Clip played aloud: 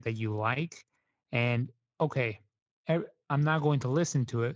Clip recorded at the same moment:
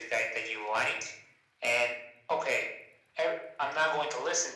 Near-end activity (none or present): none